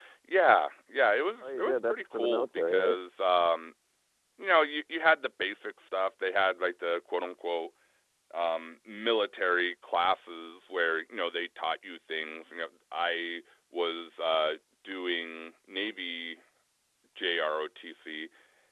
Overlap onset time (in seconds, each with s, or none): 1.4 s